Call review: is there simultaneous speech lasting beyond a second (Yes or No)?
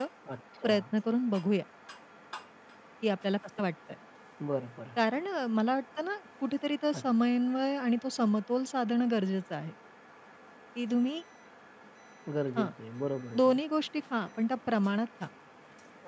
No